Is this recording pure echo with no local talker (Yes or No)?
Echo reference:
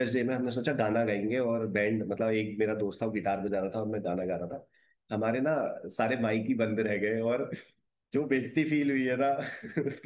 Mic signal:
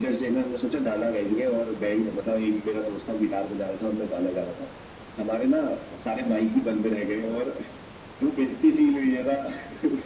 Yes